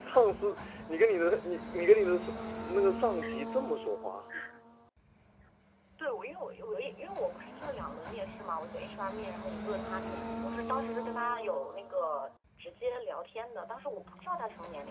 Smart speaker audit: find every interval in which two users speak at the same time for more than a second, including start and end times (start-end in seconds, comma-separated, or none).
none